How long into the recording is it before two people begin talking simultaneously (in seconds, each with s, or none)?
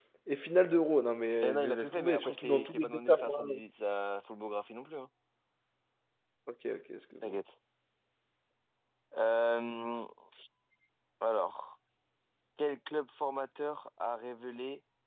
1.4 s